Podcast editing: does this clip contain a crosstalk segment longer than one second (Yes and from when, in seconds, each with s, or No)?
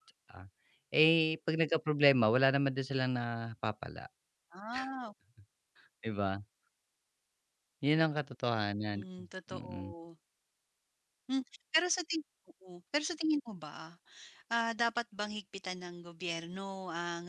No